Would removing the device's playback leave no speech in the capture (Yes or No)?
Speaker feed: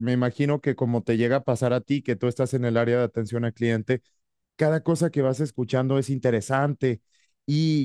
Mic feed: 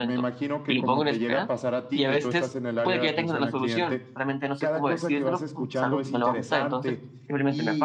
No